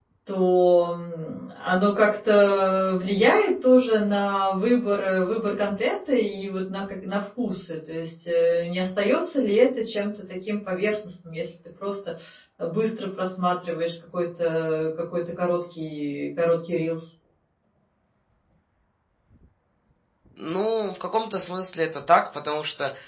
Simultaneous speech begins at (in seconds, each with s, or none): none